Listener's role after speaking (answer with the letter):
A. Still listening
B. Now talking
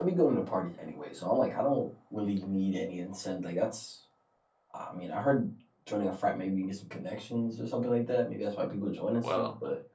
B